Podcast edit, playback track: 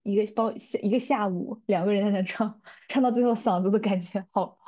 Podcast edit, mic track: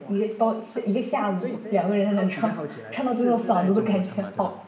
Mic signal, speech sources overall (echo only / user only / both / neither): both